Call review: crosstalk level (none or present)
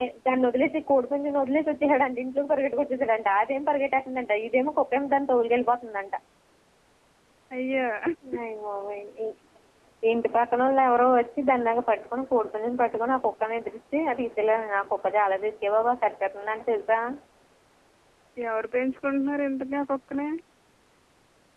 none